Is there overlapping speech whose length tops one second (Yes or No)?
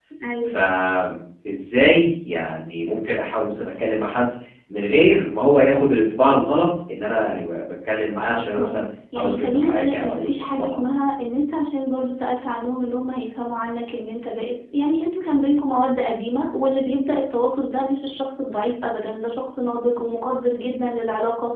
Yes